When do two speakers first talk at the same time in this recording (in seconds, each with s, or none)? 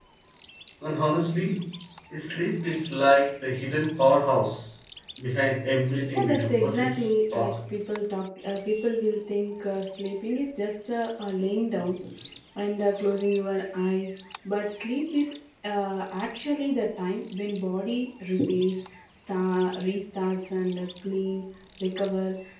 6.1 s